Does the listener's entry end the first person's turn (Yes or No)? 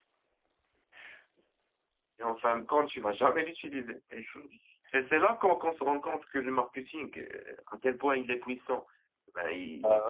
No